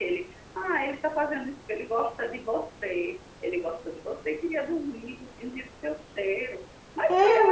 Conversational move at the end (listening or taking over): listening